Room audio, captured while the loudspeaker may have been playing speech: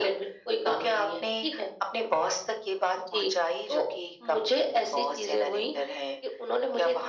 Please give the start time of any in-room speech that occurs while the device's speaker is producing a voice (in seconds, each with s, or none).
none